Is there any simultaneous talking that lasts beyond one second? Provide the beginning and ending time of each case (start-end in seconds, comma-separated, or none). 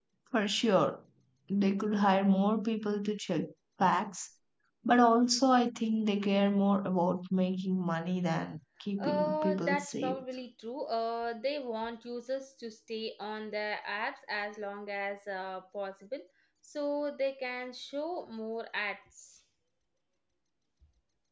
9.0-10.2